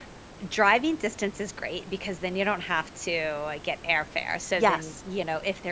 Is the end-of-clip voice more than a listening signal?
No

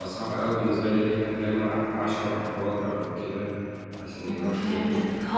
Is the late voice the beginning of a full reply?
Yes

